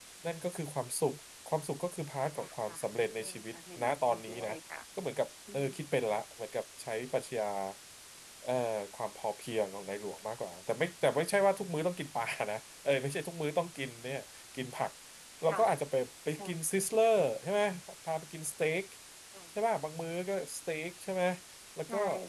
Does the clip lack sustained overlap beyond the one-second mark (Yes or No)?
No